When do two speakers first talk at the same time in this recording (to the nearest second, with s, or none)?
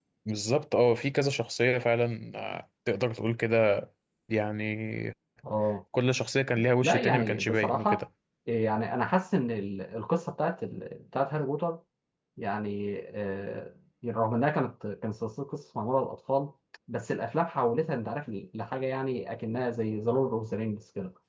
7 s